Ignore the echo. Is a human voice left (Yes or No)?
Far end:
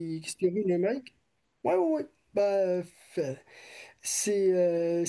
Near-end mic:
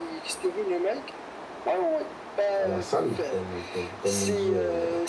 Yes